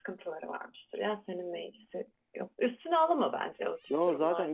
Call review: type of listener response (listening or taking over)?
taking over